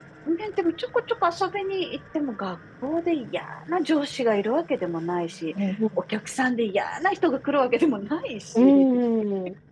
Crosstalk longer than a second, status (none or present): none